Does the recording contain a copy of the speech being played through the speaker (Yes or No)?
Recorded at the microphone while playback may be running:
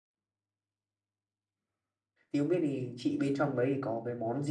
No